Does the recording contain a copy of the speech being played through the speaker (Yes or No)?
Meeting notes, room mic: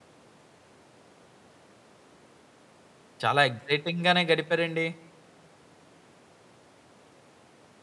No